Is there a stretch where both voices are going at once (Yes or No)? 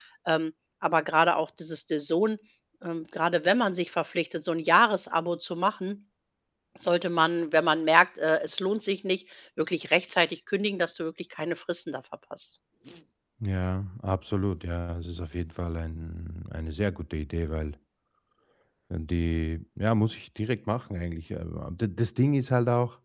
No